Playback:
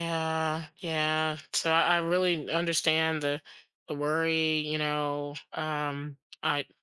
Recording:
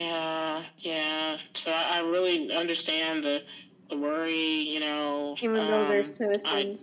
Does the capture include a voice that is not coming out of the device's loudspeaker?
Yes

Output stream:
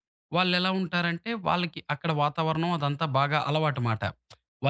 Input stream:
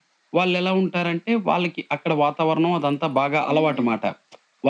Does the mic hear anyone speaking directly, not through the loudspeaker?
Yes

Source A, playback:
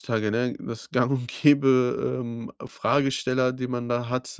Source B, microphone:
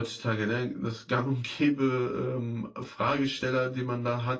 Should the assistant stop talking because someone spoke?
No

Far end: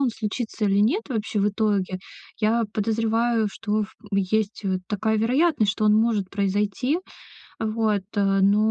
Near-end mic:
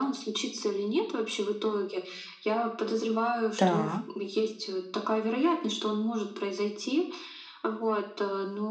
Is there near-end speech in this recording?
Yes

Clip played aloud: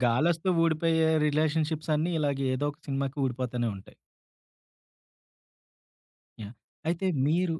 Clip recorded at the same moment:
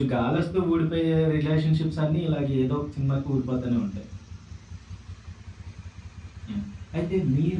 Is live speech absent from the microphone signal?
Yes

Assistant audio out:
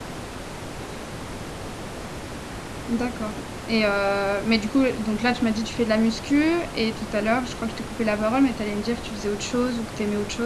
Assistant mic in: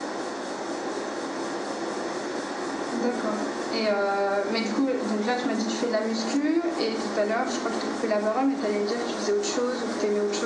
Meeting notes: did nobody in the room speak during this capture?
Yes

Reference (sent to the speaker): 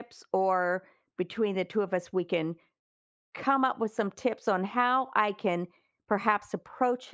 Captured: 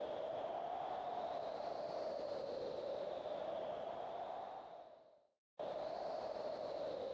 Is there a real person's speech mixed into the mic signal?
No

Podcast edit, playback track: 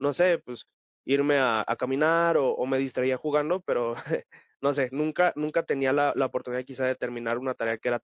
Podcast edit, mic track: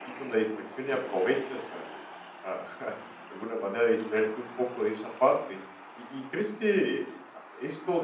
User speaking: Yes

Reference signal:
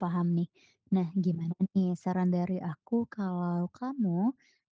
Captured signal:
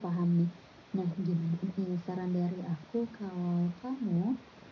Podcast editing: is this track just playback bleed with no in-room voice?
Yes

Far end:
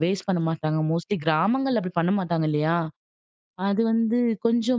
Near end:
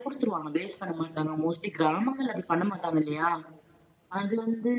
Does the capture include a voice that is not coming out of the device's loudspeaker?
No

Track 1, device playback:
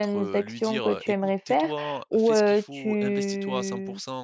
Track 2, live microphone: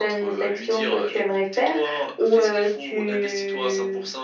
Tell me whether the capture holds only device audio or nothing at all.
Yes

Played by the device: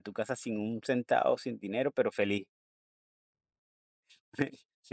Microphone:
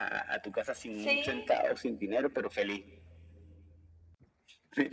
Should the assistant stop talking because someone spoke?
Yes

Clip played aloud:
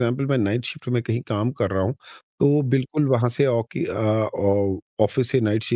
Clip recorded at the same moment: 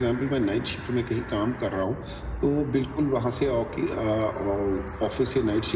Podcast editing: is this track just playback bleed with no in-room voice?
Yes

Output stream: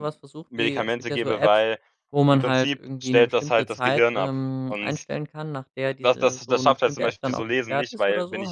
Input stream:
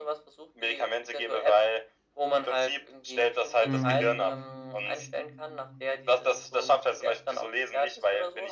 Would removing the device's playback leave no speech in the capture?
No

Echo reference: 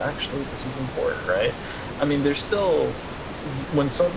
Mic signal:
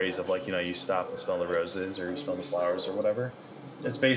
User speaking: Yes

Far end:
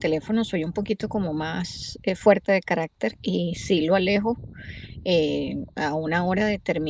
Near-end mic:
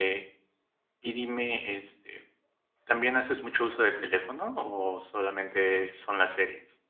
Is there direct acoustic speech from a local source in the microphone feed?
Yes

